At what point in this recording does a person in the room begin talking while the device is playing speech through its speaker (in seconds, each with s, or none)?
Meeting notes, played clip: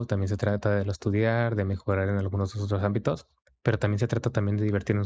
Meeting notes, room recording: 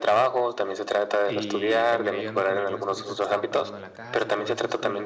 1.2 s